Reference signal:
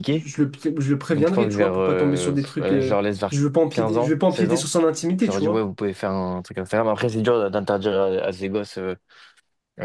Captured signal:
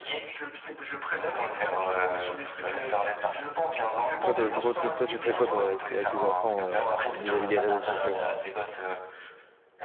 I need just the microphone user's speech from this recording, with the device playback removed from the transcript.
Toi, toi, pourquoi- toi, toi, tu ferais quoi toi, avec, avec tes enfants euh, vis-à-vis des réseaux sociaux?

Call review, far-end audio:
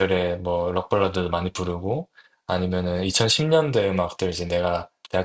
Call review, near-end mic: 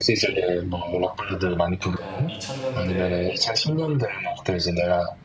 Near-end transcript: 약간 2000년대

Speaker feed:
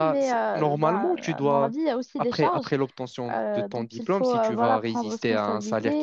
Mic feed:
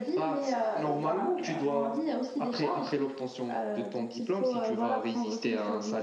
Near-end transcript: none

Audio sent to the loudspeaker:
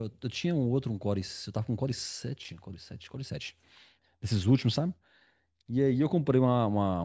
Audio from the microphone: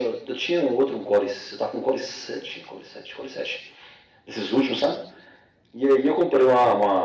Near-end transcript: none

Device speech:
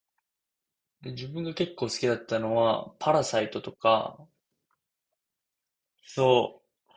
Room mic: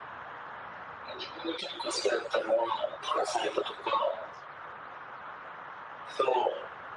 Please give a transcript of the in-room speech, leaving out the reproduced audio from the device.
none

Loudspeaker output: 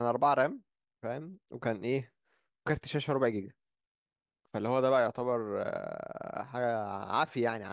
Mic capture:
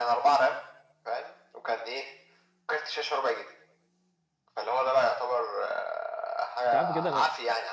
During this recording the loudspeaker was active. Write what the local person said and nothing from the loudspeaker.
انت عارف كده انا

